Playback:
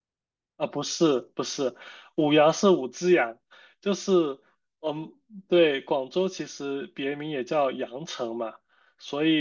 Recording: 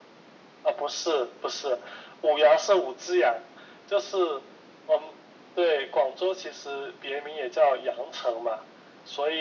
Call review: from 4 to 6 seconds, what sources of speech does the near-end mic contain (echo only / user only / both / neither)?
echo only